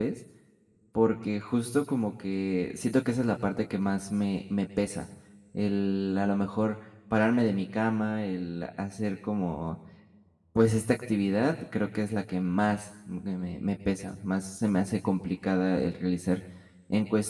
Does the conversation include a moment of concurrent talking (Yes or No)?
No